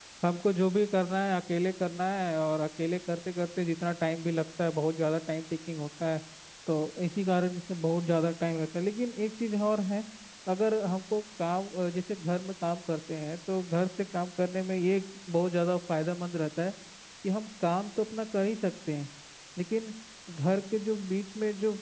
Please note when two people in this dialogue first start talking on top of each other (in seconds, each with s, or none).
none